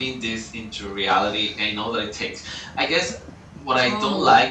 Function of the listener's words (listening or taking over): listening